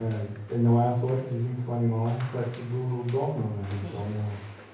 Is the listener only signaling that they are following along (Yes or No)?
Yes